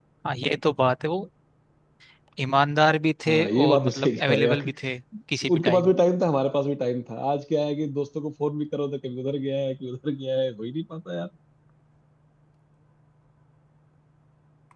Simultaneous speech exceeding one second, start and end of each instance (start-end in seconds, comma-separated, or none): 3.3-4.6